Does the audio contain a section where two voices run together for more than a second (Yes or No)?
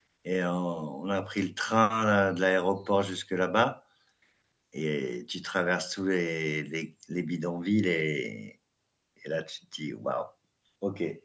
No